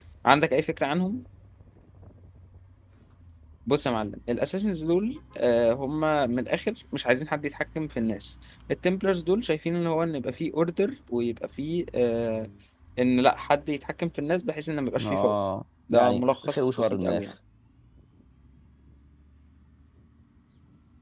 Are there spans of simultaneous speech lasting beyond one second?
Yes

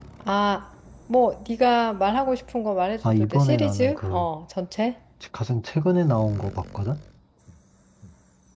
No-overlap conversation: No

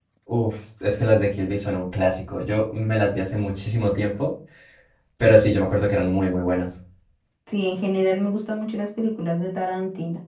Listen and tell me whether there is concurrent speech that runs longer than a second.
No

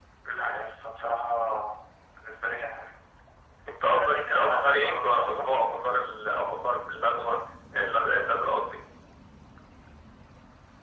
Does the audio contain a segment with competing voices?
Yes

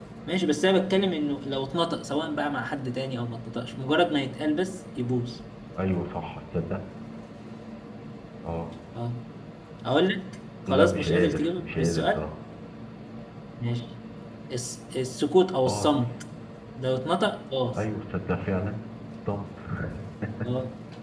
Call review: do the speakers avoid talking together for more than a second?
No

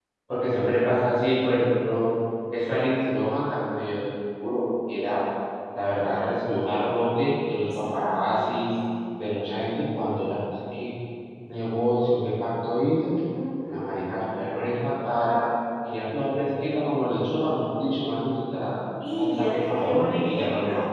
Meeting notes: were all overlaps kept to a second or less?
No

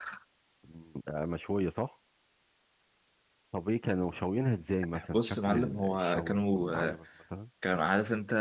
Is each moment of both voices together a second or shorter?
No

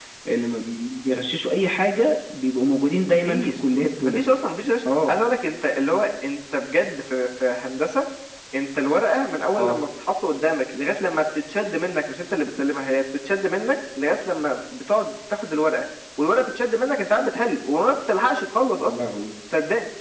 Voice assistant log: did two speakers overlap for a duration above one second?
No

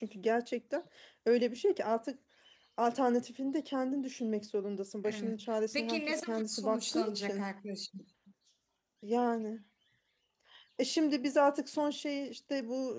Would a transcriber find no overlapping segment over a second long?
No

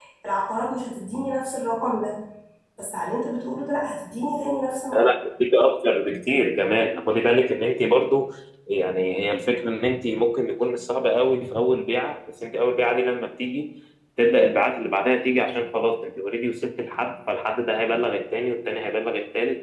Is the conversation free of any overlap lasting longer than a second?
Yes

